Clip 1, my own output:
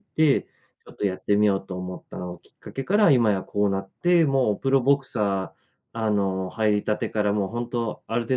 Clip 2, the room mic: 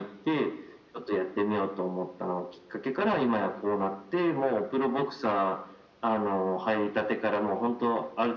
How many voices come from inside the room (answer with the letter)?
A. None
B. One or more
A